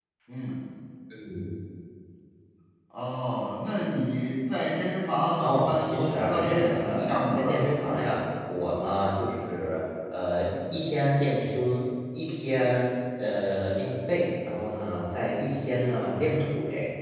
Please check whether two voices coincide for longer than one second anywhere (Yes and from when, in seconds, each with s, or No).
Yes, from 5.4 s